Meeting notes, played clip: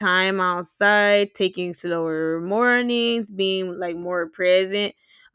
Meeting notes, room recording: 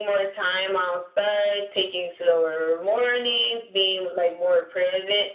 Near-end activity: none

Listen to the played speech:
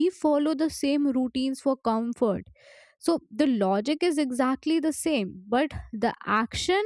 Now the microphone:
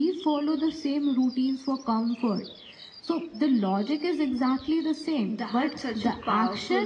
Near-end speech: present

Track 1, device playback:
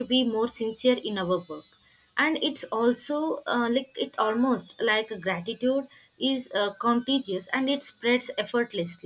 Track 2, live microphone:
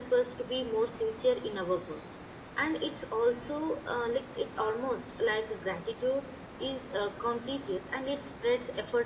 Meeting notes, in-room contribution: none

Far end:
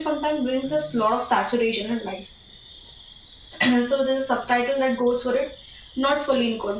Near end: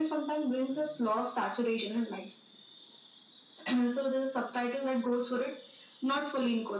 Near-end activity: none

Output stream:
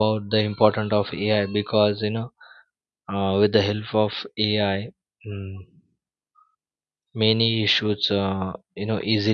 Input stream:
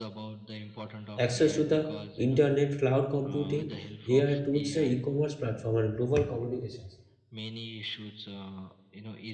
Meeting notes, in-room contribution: present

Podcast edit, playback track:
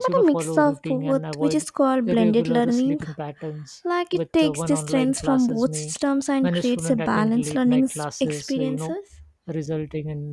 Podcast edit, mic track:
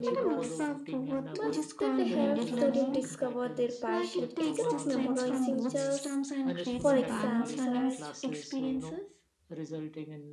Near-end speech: present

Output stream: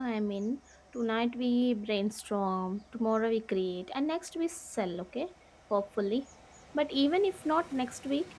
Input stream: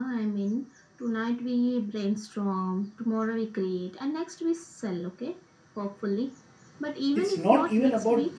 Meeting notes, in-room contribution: present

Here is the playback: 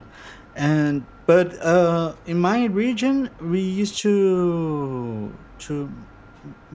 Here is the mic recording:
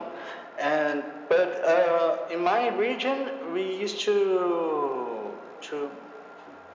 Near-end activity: none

